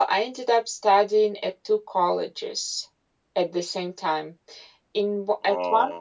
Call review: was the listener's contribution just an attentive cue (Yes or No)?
Yes